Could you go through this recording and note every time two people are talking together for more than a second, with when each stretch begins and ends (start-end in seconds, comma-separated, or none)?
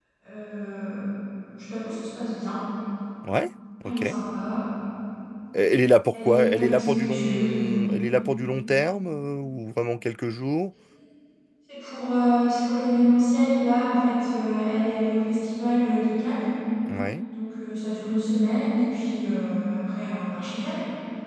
6.1-7.8